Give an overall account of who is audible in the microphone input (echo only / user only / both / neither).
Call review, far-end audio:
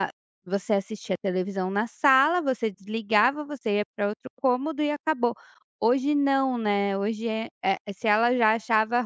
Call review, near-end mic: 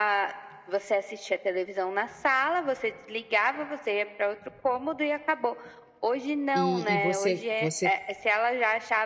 both